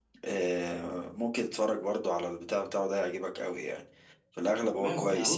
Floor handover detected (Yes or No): Yes